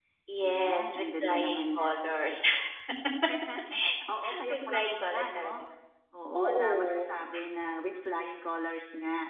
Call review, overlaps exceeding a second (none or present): present